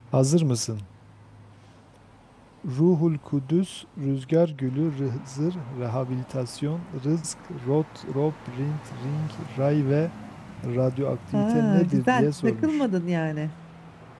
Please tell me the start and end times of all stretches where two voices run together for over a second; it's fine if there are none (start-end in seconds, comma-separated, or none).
11.3-12.8